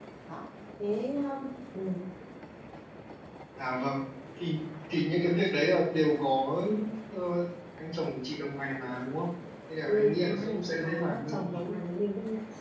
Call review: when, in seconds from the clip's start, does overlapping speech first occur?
9.9 s

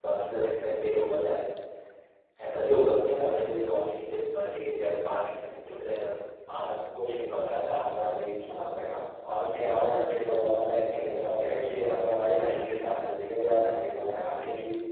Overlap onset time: none

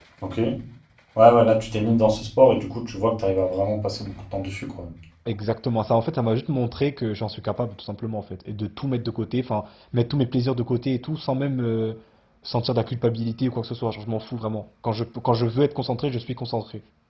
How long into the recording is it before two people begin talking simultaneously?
none

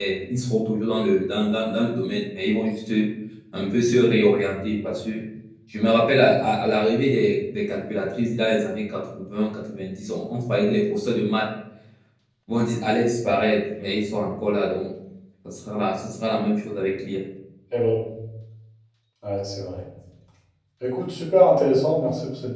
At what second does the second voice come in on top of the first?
none

